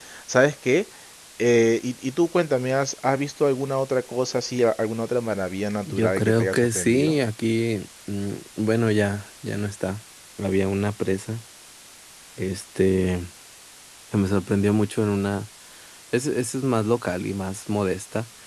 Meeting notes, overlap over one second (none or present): present